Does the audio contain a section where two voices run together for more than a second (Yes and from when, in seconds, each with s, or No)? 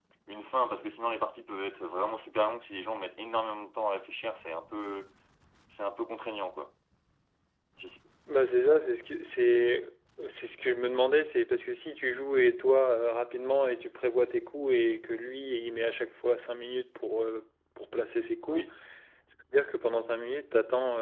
No